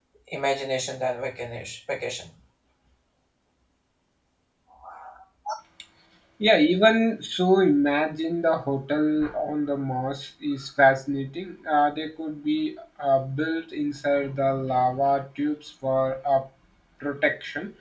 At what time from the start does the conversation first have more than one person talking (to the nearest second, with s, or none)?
none